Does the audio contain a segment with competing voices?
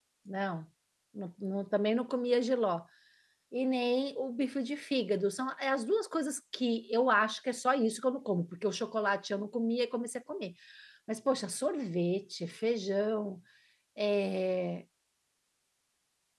No

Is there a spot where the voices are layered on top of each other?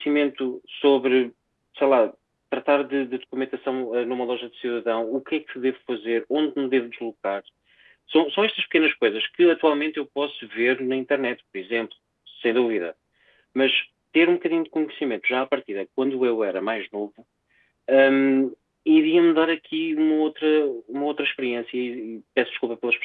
No

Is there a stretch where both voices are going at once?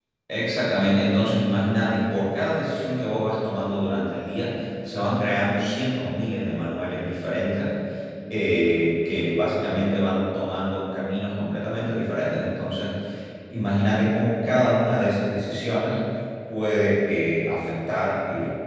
No

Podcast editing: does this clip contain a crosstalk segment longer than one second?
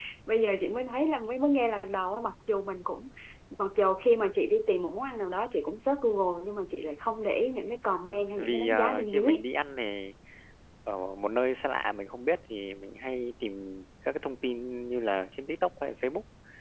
Yes, from 8.1 s

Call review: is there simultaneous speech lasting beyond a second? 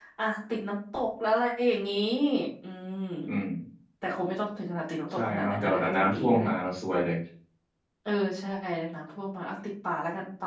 Yes, from 5.1 s

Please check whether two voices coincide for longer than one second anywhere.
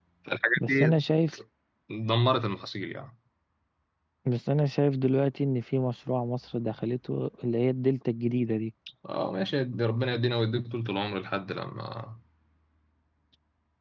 No

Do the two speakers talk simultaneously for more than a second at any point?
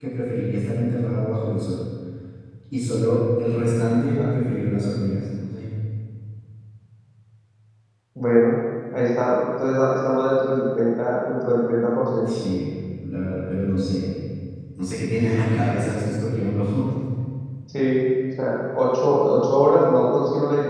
No

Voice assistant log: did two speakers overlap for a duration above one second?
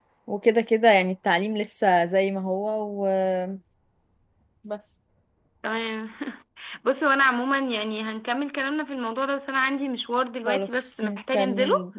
Yes, from 10.4 s

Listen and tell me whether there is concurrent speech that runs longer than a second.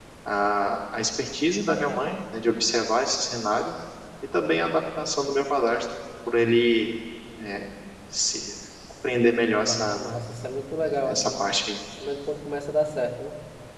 No

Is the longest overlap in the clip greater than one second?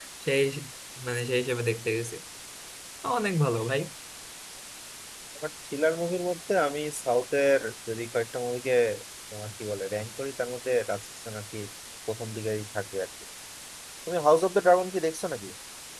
No

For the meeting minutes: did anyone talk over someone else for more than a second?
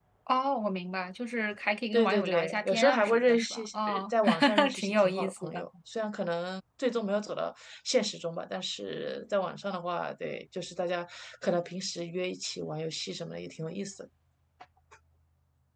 Yes, from 1.9 s

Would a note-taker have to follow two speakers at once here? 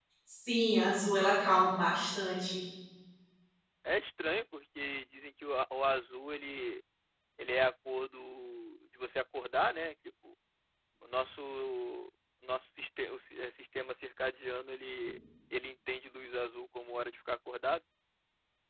No

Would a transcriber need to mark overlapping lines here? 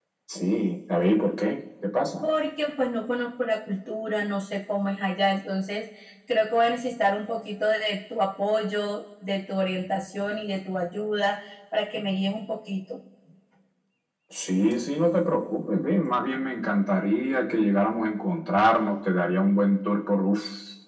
No

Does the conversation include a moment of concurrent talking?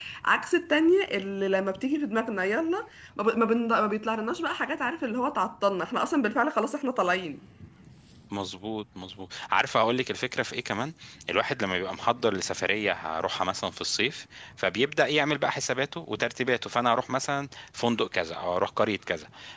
No

